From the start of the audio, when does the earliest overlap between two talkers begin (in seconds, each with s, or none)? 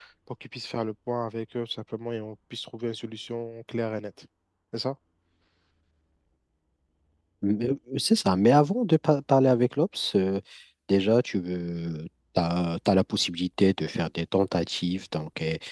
none